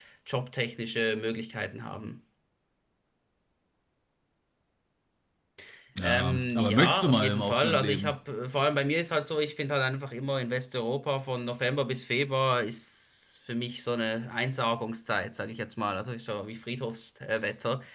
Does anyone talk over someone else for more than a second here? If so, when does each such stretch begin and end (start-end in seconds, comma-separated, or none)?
6.0-8.2